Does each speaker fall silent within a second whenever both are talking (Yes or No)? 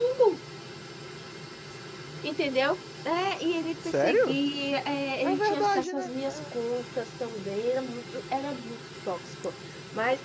No